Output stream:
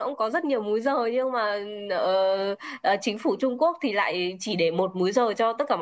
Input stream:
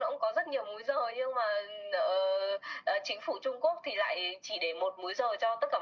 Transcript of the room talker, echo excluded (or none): none